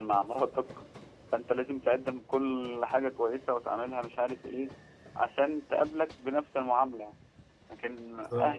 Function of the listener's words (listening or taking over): listening